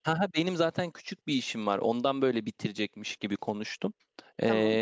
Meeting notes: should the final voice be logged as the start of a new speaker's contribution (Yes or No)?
No